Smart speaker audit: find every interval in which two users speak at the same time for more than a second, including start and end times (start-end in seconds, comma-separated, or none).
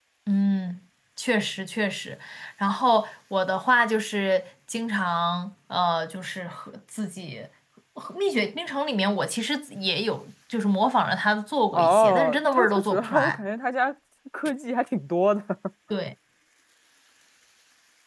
11.7-13.4